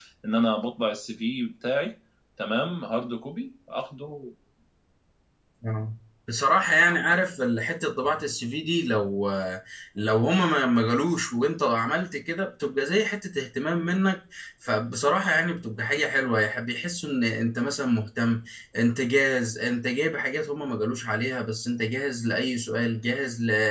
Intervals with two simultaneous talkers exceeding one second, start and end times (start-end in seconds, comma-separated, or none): none